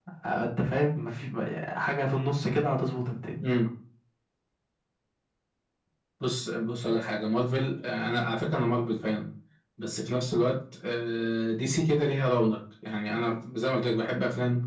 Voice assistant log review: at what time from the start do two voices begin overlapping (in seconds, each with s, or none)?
none